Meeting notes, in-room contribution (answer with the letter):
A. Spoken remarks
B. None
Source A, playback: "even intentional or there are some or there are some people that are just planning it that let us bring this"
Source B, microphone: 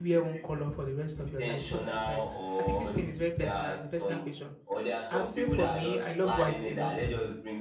A